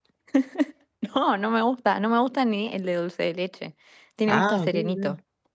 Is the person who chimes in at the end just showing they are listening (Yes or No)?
No